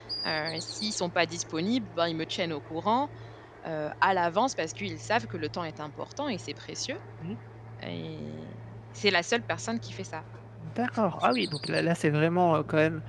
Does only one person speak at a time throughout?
Yes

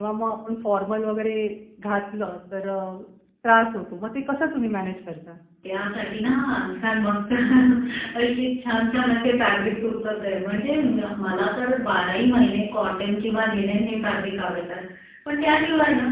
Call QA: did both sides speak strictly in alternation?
Yes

